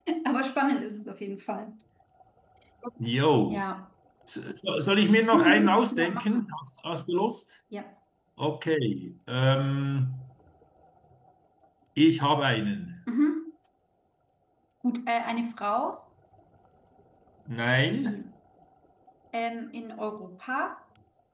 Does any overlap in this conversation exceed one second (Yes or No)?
Yes